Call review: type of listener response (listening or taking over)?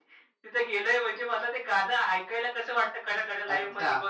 taking over